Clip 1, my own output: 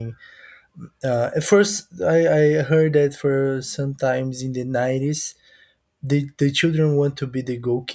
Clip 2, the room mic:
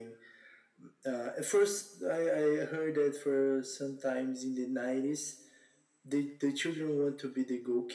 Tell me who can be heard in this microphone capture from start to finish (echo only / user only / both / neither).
echo only